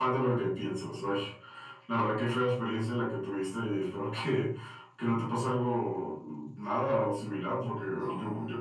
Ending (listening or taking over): listening